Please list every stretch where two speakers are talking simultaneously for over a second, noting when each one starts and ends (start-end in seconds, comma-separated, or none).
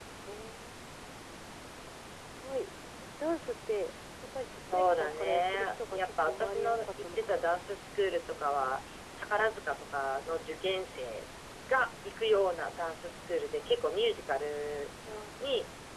4.7-7.5